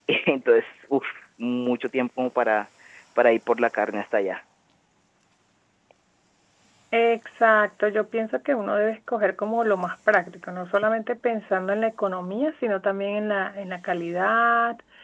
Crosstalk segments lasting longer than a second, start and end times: none

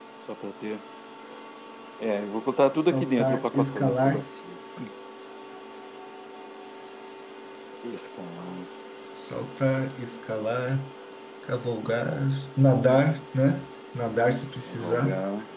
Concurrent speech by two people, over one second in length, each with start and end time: 2.8-4.2

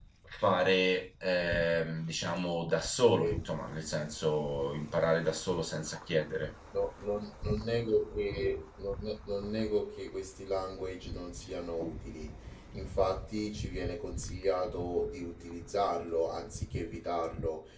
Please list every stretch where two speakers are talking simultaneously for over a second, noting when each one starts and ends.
none

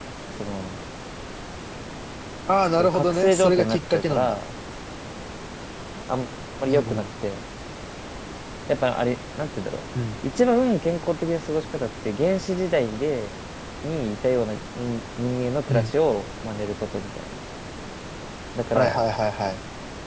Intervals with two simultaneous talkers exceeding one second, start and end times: 2.8-4.4

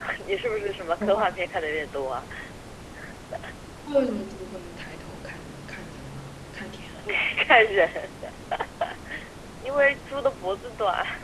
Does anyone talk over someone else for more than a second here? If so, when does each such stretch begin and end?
none

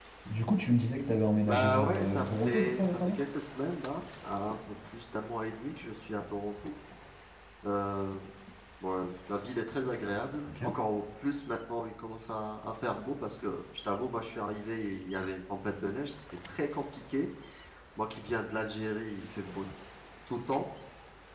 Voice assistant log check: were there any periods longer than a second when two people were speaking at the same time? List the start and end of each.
1.5-3.2

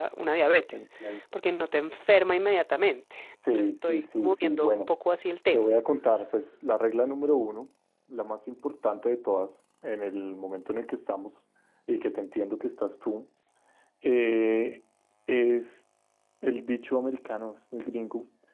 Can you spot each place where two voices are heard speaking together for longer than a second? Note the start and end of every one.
3.5-4.9

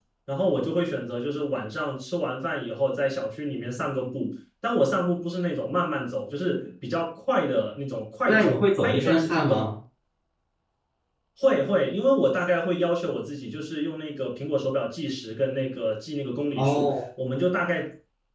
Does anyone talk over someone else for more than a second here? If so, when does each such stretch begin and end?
8.2-9.6

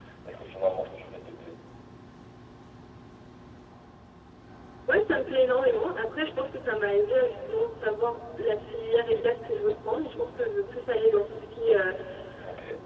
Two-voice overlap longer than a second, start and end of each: none

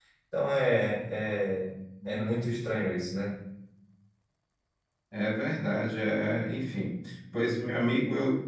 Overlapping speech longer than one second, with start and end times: none

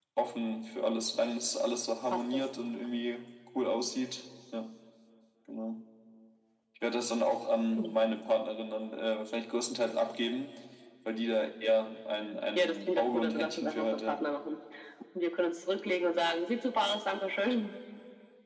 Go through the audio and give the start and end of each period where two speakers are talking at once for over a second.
12.6-14.2

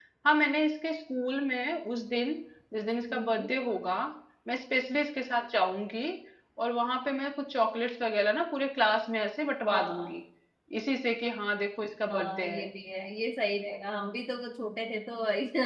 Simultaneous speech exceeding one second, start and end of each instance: none

